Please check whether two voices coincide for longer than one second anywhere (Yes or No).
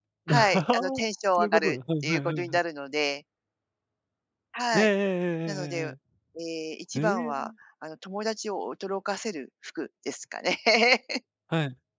Yes